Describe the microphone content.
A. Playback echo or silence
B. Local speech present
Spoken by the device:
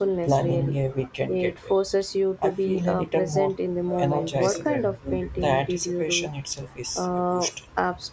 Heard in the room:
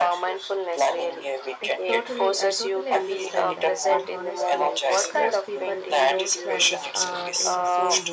B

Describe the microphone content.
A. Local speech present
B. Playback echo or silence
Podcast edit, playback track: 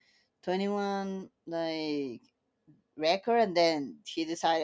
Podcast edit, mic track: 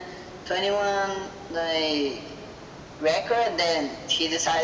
B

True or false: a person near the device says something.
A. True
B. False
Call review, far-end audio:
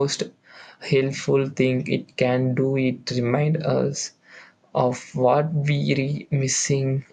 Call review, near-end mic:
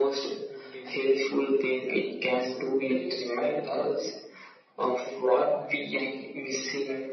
A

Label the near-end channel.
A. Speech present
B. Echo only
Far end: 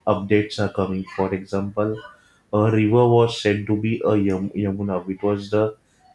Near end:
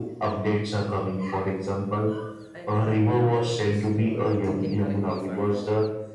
A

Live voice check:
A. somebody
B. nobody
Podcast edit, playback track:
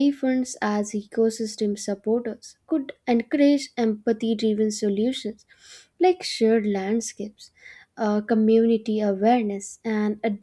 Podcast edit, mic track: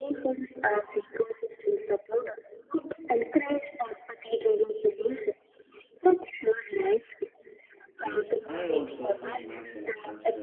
A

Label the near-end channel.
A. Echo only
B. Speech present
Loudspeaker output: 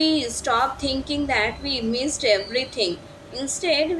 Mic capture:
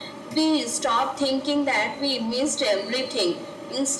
A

